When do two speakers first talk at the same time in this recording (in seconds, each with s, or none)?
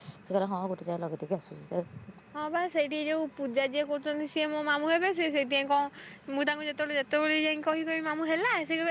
none